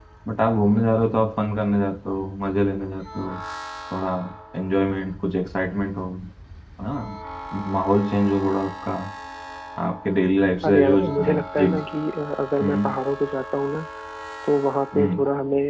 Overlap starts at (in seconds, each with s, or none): 10.6 s